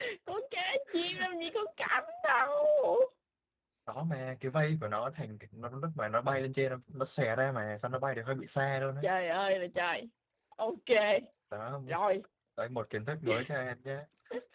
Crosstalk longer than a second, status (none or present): none